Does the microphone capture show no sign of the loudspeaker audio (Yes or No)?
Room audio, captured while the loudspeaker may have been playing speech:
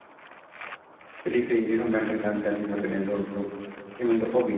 Yes